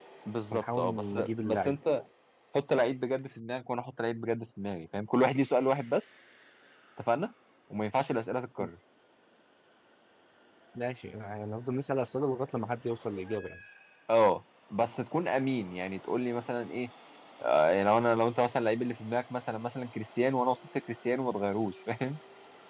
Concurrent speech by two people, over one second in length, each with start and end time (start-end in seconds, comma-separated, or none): 0.5-1.8